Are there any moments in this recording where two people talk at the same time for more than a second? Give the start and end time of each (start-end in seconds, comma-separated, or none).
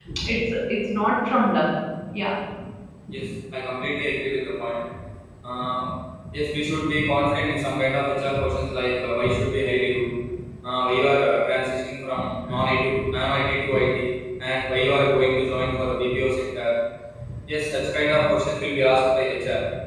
none